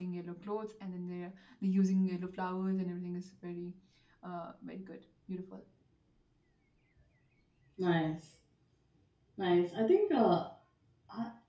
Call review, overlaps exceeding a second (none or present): none